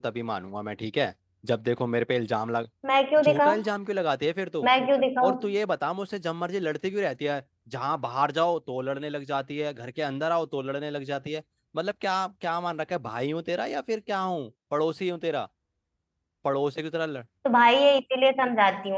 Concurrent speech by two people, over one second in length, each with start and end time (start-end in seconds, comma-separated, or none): none